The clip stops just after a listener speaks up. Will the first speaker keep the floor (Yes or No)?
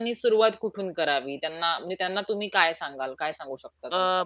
No